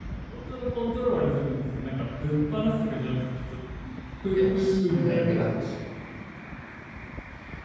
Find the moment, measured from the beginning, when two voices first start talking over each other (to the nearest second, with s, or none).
4 s